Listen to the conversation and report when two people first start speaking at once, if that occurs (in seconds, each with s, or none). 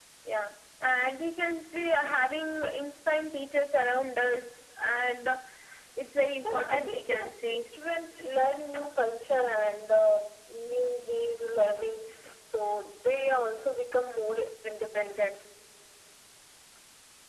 6.4 s